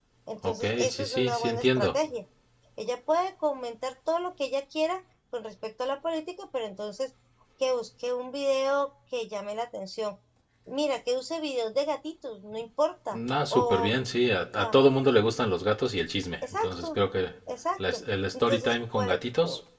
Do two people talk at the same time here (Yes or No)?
Yes